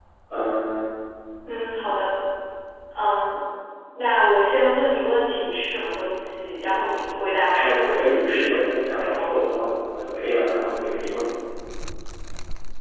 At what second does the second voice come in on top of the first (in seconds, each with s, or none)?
7.6 s